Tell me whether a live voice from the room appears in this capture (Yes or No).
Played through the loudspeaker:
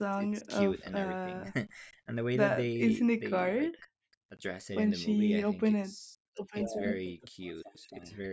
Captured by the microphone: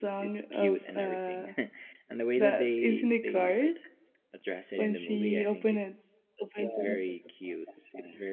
No